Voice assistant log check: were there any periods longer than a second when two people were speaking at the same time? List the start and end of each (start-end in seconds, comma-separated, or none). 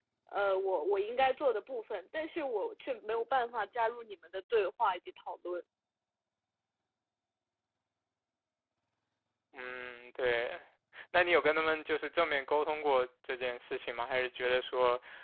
none